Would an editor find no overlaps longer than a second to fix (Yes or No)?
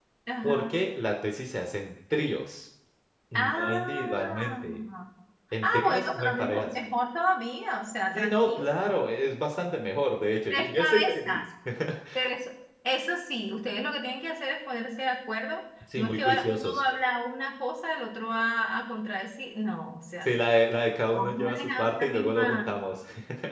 No